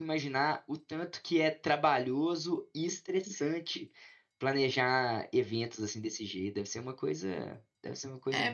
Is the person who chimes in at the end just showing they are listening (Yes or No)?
No